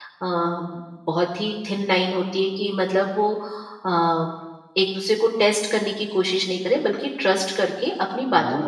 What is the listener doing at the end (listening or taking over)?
taking over